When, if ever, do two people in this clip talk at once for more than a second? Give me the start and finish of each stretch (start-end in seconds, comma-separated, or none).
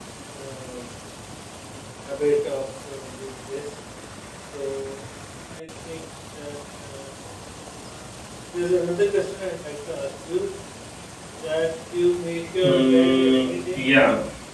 12.6-13.8